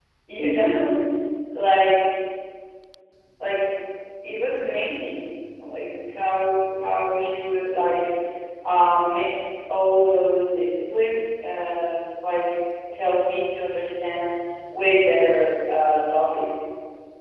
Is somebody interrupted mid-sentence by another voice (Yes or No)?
No